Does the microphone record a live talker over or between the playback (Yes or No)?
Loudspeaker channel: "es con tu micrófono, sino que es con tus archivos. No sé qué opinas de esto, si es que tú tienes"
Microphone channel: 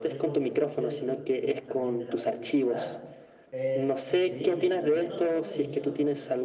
Yes